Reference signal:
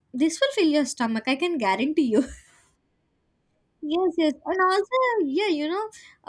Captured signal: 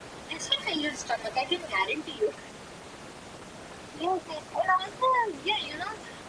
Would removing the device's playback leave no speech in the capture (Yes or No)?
Yes